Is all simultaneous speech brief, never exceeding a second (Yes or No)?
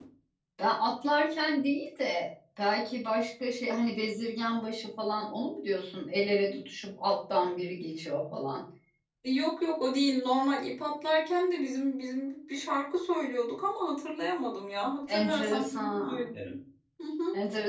No